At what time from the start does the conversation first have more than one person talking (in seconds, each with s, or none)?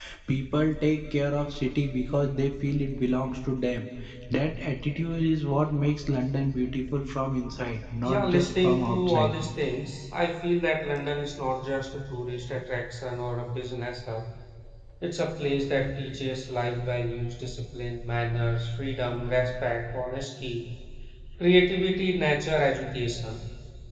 8.0 s